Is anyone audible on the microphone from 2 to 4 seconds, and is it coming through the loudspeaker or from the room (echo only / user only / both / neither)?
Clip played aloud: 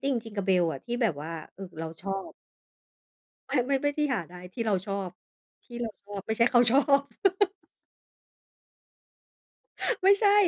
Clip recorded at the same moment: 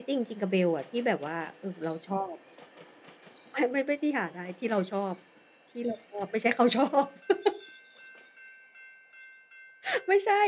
echo only